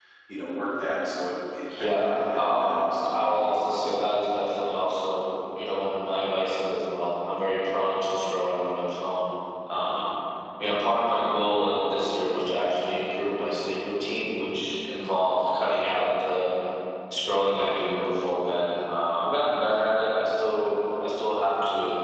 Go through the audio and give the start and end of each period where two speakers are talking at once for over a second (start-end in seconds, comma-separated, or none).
1.7-3.8